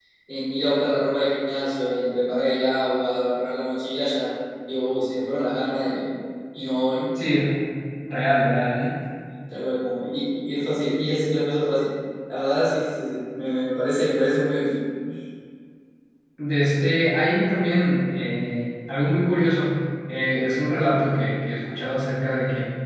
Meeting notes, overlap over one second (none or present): none